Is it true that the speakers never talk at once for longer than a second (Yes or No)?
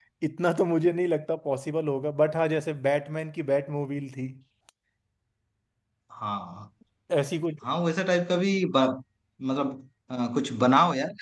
Yes